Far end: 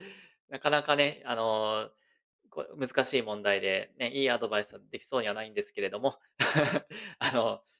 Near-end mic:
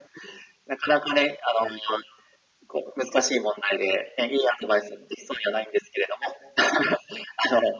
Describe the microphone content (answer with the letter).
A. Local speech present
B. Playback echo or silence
B